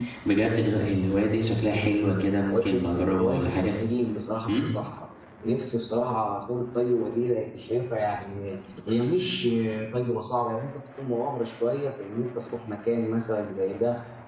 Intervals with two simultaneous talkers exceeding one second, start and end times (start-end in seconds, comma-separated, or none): 2.5-3.8